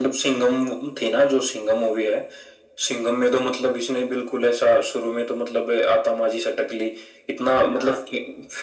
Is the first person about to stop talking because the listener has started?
No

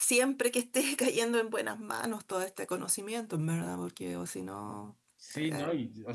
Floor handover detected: Yes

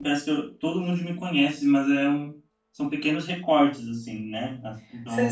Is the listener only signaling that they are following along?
No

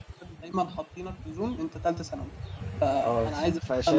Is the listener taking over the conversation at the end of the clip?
Yes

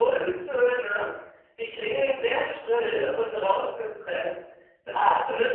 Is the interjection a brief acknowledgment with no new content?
Yes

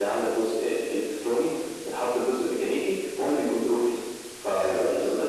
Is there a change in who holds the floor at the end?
Yes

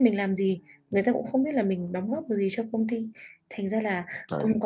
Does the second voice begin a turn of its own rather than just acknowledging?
No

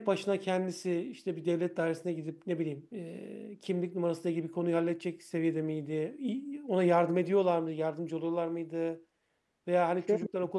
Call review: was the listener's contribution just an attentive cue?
Yes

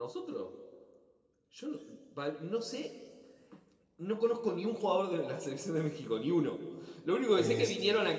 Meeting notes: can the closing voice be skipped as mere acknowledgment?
Yes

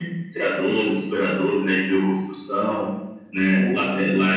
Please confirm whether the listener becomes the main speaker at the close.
No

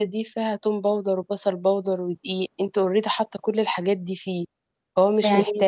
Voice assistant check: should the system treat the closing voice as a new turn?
Yes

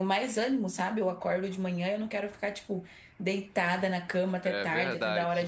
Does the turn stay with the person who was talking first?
Yes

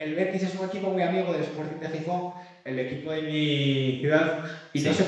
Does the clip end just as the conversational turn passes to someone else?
No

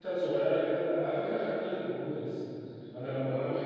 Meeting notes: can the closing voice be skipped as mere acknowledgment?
Yes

